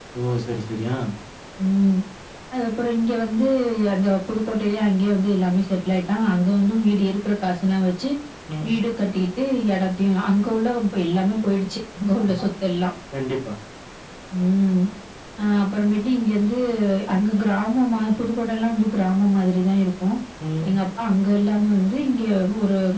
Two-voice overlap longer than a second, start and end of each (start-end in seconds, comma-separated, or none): none